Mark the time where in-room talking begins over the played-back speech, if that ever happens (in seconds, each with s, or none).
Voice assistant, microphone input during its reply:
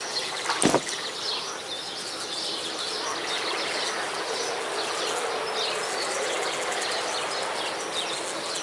none